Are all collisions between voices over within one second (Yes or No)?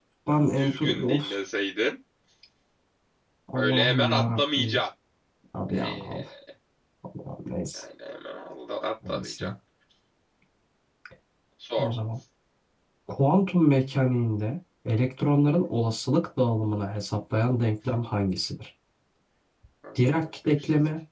No